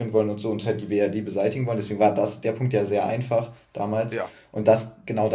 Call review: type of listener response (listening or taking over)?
listening